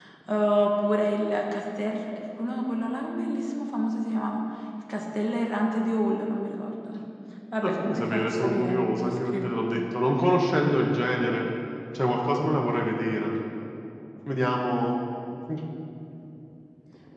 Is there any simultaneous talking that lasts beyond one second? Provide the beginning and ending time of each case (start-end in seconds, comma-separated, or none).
7.6-9.5